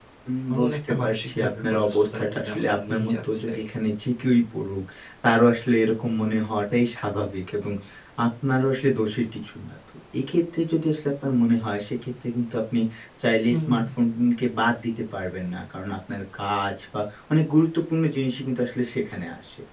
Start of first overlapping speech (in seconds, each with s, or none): 0.5 s